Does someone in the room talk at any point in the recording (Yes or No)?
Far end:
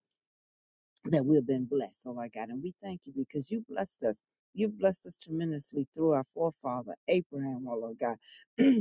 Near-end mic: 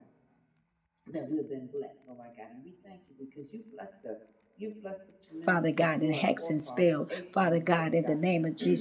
Yes